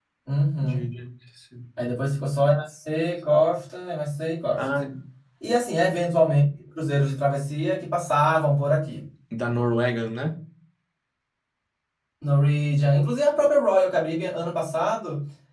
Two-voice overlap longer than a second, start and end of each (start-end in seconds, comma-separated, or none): none